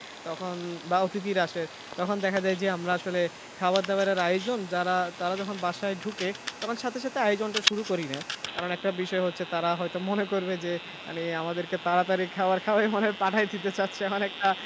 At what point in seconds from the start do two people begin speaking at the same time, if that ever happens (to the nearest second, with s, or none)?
none